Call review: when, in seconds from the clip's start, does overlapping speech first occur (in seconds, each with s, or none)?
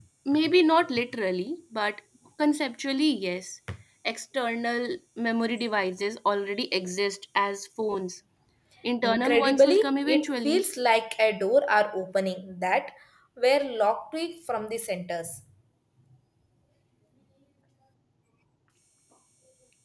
9.0 s